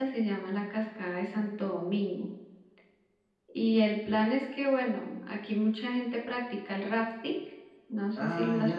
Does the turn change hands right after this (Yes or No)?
Yes